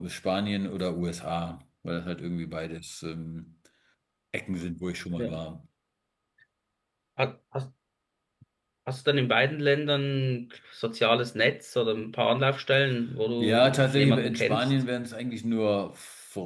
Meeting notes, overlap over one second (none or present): present